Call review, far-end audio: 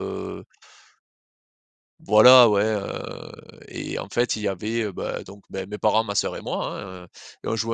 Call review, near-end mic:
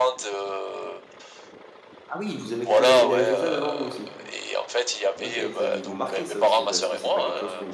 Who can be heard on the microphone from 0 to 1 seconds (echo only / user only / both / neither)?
echo only